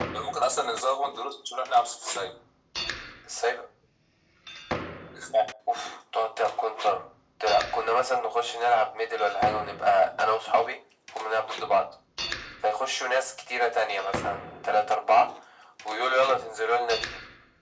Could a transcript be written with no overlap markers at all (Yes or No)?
Yes